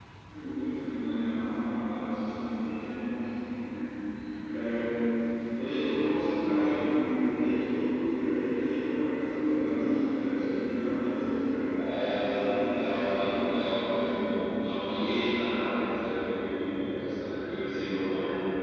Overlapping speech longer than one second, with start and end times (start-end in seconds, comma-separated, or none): 12.3-14.2